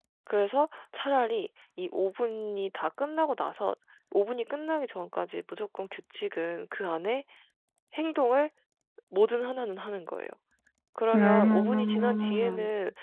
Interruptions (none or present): present